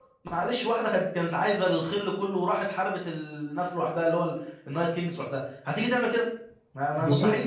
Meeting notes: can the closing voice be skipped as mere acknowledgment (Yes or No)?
No